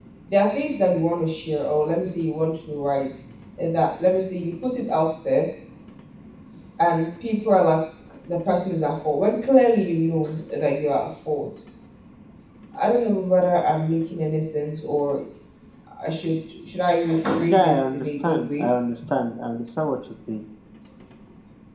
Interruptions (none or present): present